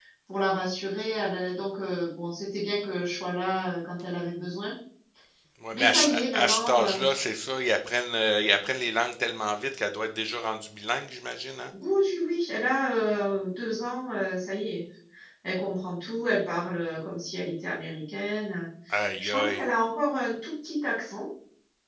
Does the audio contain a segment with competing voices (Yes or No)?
Yes